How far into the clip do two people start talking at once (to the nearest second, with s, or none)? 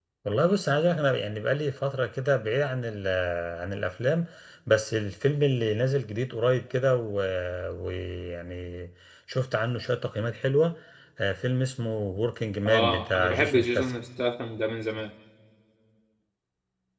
13 s